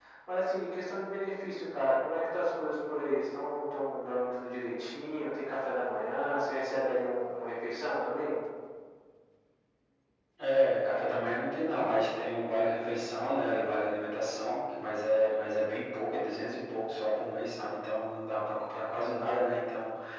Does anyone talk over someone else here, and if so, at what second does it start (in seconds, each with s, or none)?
none